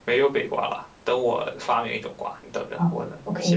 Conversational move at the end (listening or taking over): taking over